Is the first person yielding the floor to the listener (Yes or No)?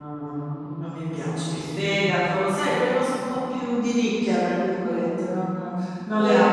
Yes